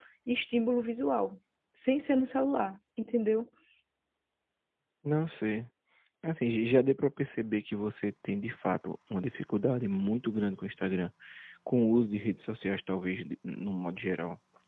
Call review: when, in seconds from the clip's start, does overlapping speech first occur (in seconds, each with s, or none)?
none